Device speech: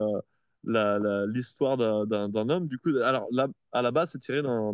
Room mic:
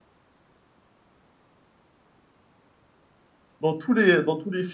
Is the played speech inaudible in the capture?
Yes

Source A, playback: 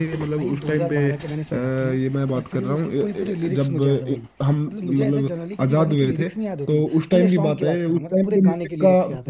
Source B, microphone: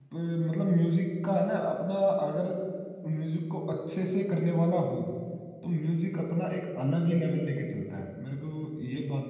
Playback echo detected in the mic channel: No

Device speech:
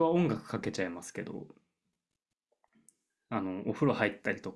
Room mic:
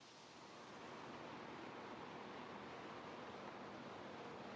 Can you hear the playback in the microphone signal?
No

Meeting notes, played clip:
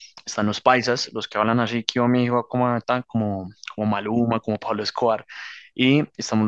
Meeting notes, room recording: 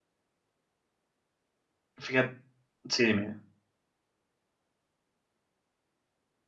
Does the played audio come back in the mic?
No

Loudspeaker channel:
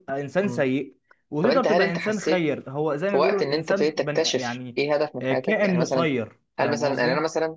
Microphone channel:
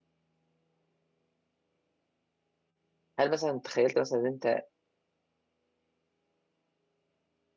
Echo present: No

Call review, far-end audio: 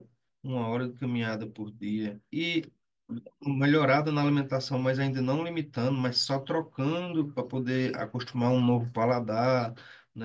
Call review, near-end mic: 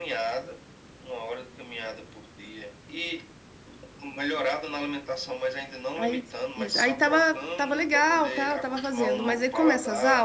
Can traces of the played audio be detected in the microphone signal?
Yes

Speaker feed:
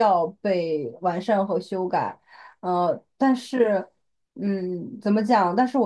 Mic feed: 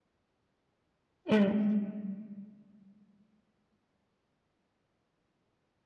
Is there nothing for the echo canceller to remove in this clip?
Yes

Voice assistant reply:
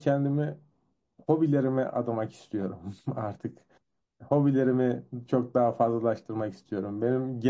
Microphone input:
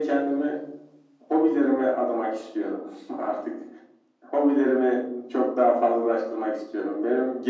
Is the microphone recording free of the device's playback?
No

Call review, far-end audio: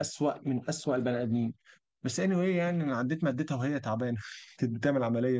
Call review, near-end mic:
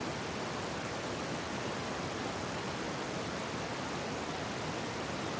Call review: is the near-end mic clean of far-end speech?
Yes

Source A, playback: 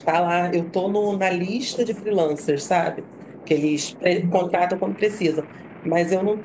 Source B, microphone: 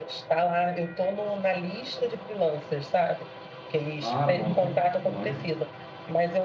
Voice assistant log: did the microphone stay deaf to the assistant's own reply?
No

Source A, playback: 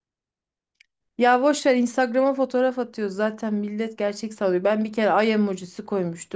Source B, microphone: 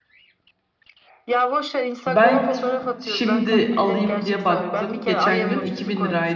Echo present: Yes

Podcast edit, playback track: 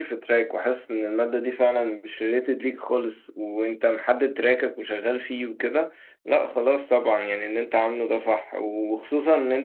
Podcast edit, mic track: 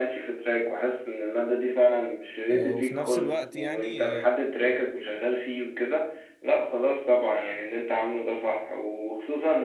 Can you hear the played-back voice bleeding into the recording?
Yes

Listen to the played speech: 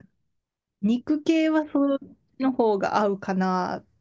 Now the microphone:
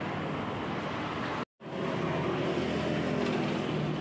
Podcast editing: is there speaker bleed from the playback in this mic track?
No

